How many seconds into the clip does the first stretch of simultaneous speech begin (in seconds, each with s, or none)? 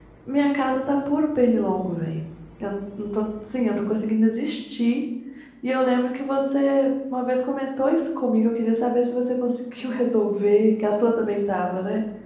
none